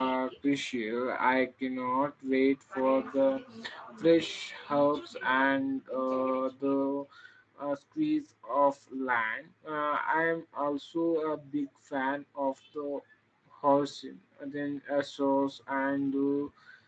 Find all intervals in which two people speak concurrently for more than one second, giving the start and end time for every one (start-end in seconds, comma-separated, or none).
none